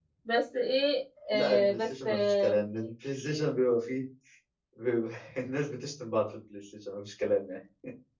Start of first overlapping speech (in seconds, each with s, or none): 1.3 s